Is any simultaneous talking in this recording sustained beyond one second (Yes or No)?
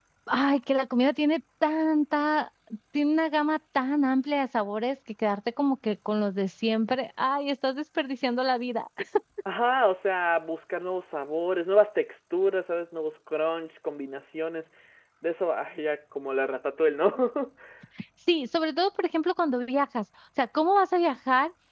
No